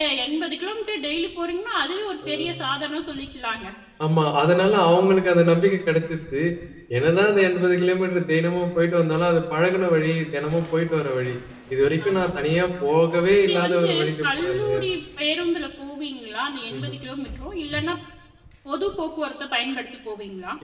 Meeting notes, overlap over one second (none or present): present